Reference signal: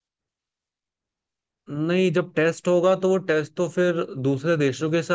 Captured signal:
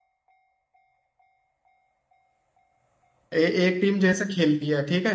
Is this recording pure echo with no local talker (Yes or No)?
No